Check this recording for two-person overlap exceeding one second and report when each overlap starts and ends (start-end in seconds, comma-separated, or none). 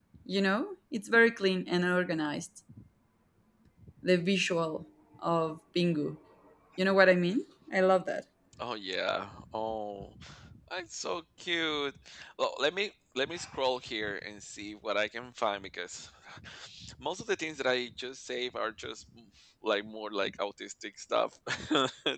none